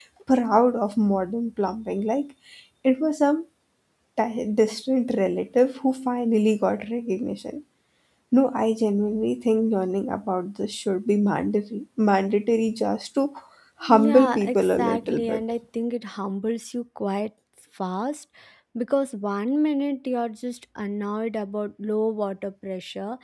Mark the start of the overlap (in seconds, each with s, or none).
13.9 s